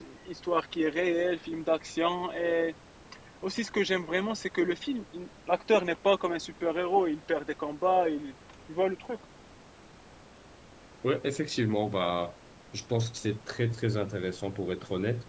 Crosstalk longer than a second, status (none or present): none